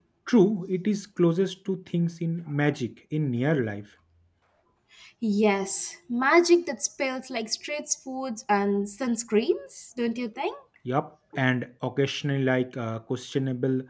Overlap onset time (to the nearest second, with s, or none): none